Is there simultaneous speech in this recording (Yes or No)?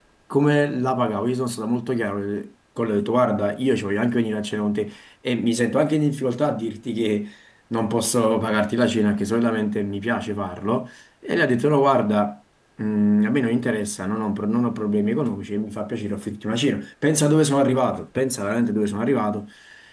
No